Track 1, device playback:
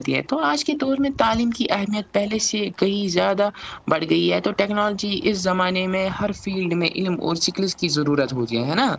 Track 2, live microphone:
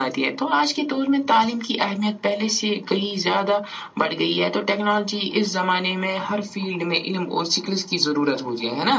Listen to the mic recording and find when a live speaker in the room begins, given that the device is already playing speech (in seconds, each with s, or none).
none